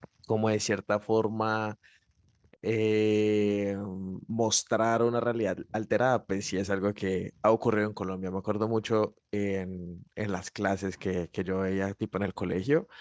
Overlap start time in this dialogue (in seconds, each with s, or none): none